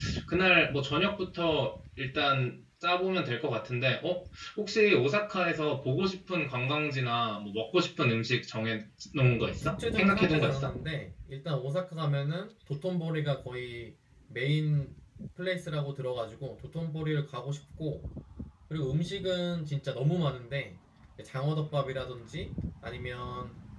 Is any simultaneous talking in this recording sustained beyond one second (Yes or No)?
Yes